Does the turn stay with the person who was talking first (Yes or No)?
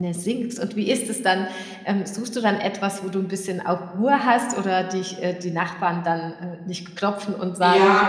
No